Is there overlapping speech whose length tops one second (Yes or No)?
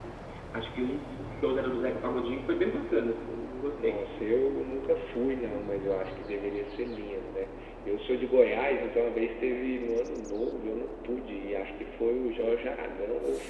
No